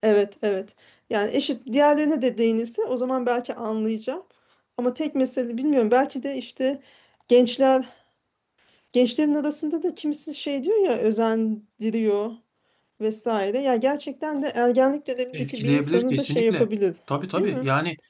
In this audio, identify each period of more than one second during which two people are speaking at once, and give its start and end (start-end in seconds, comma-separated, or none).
15.3-16.7